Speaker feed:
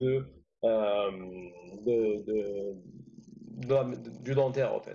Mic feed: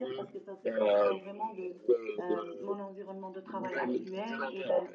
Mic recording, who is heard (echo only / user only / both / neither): both